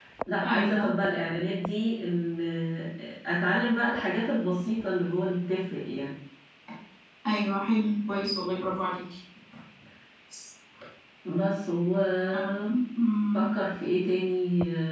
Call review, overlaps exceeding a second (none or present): none